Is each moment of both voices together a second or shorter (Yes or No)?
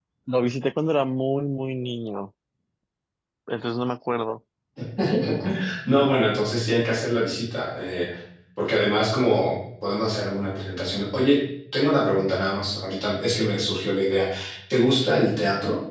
Yes